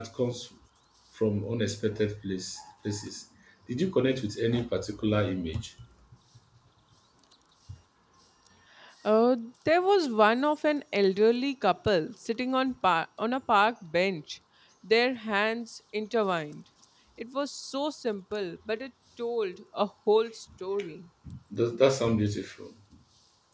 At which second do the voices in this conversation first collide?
none

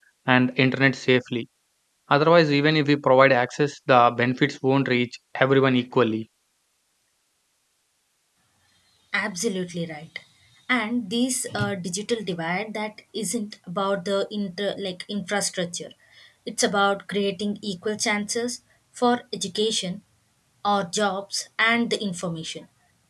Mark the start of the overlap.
none

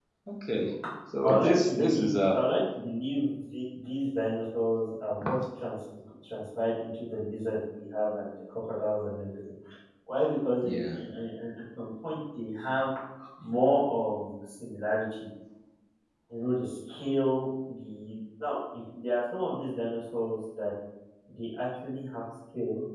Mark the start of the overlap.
1.2 s

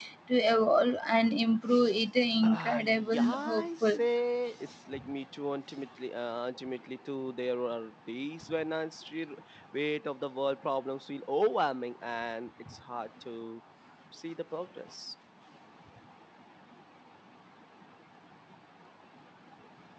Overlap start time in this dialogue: 2.4 s

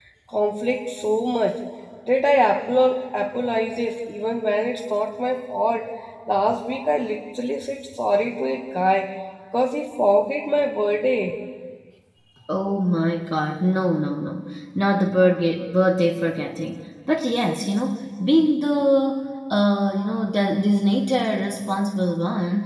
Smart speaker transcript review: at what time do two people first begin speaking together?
none

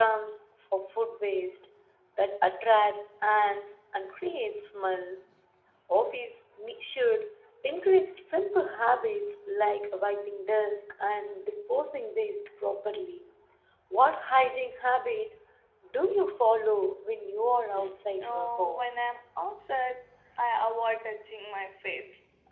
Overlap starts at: 17.7 s

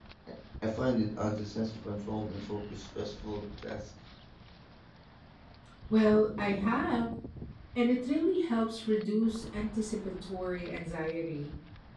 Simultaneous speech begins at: none

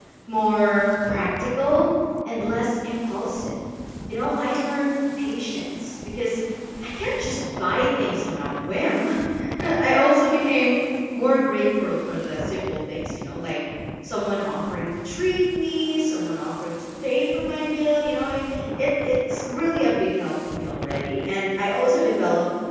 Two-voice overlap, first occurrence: none

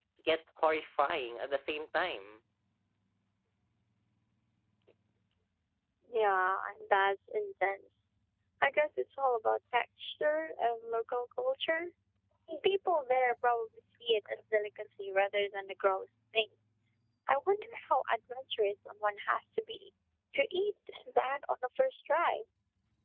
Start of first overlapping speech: none

